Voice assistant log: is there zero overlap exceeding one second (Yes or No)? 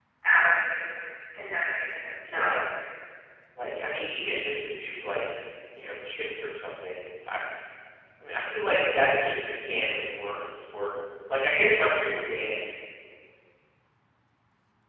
Yes